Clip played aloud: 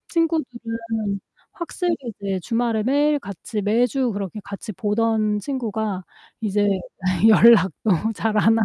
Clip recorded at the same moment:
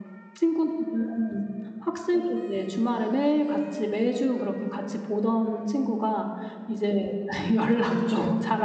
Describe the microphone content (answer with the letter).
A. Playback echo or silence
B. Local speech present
B